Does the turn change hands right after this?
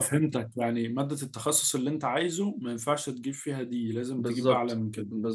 Yes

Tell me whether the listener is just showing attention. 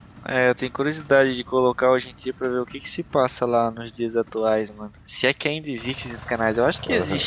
No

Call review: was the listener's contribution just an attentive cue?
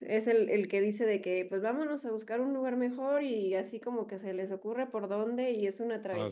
Yes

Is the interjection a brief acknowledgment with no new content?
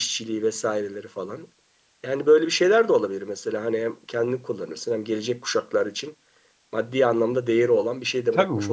No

